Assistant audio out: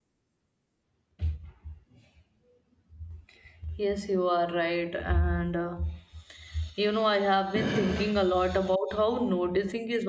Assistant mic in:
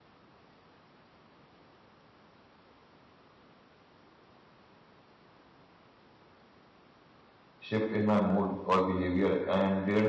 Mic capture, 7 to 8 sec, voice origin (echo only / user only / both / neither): user only